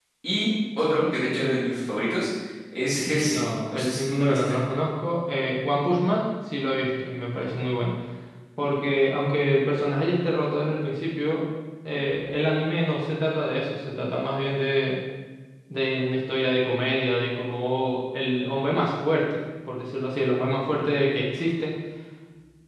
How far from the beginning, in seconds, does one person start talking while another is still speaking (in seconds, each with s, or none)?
3.2 s